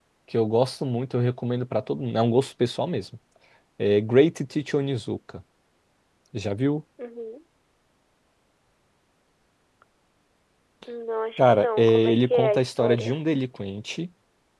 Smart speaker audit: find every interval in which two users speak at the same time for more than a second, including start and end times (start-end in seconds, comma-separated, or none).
11.4-13.2